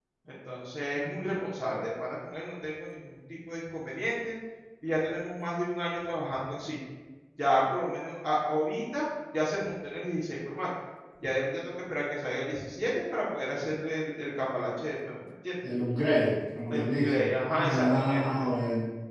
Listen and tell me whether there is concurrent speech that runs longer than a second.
Yes, from 16.7 s

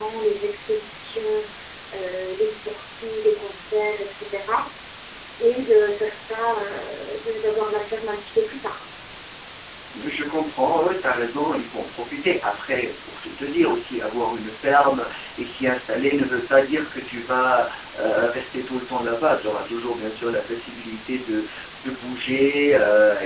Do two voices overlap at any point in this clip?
No

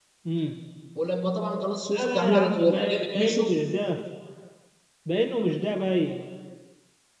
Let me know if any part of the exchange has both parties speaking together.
Yes, from 1.9 s

